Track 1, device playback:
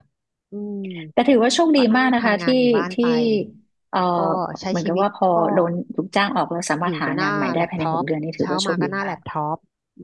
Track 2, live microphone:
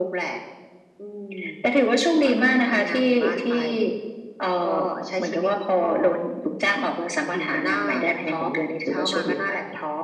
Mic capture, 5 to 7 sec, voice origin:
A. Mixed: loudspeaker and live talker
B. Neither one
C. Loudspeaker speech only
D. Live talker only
C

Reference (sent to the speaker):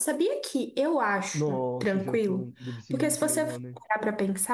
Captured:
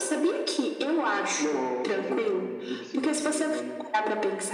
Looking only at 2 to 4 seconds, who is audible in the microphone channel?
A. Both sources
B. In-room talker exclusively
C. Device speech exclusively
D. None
C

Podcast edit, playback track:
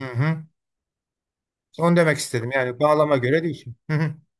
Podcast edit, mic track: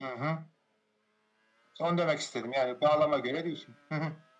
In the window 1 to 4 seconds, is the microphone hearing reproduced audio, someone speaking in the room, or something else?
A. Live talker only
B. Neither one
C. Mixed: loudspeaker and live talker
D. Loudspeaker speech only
D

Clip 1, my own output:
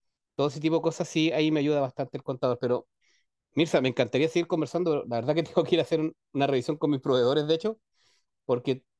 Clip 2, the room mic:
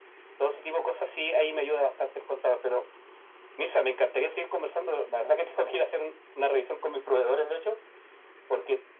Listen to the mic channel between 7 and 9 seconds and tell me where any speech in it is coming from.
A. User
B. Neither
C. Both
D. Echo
D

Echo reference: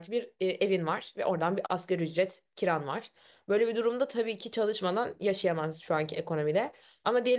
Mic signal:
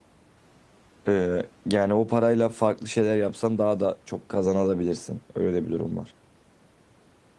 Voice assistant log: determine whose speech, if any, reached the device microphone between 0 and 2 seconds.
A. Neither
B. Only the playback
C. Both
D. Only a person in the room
D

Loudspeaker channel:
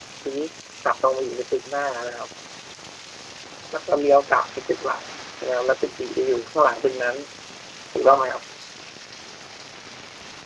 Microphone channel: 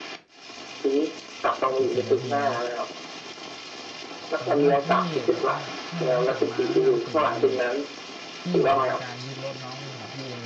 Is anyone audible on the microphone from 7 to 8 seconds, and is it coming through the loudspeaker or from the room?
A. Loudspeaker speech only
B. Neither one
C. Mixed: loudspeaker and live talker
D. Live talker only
C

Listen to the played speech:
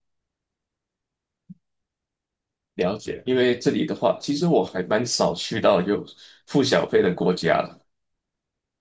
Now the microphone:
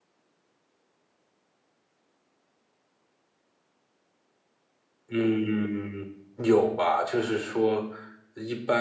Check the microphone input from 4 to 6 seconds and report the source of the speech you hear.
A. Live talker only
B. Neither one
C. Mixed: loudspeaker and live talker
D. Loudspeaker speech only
A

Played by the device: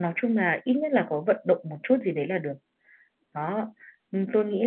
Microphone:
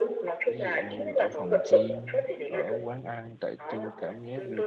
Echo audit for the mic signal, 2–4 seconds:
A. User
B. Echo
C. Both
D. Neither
C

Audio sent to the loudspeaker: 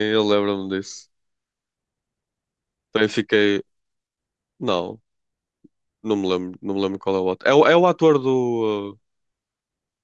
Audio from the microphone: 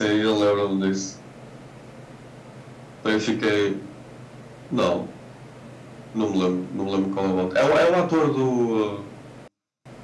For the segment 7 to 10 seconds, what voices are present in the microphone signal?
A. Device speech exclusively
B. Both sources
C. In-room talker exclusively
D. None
A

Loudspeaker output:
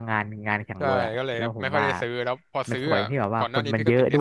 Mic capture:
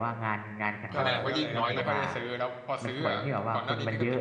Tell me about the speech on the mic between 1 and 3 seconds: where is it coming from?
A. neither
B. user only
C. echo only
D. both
D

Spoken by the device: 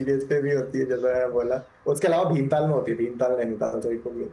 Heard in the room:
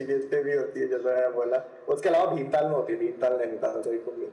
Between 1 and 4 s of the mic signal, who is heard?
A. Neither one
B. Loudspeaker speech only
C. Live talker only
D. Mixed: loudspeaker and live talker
B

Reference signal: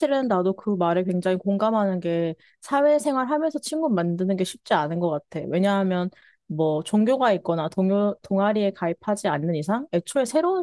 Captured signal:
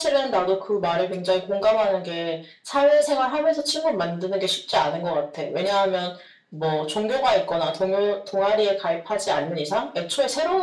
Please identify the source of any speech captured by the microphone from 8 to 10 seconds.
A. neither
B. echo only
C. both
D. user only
B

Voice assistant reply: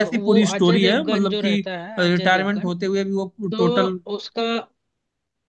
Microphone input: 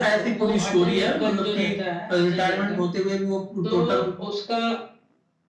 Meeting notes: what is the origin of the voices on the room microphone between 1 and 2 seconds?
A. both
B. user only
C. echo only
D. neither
C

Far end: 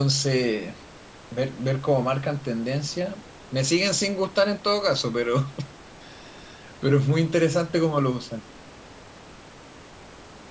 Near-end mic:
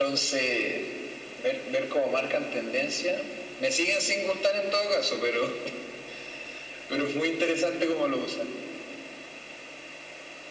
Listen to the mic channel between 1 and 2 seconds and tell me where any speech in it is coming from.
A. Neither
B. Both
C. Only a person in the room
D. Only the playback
D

